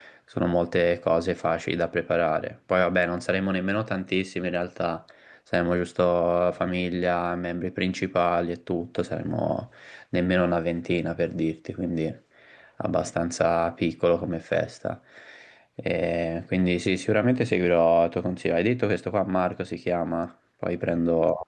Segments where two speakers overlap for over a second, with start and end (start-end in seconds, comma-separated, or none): none